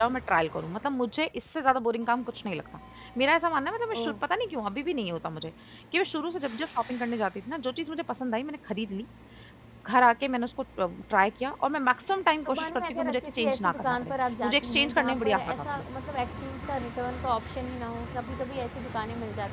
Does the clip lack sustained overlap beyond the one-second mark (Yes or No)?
No